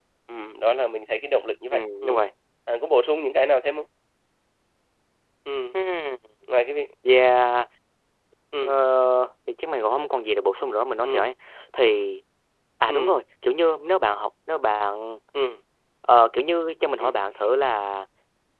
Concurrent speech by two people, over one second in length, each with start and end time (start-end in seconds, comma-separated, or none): none